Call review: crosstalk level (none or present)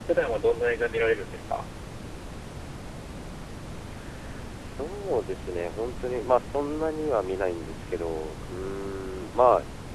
none